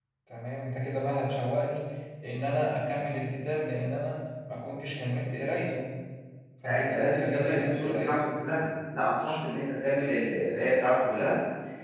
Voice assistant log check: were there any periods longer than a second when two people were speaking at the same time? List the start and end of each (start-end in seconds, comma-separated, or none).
6.7-8.2